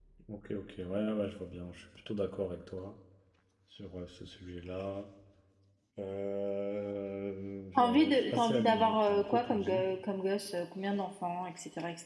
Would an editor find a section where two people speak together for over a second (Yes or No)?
Yes